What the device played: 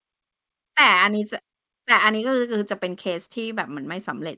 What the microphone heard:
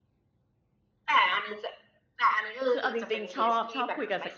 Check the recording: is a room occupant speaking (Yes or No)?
Yes